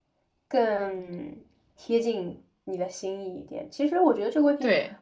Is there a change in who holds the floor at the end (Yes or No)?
No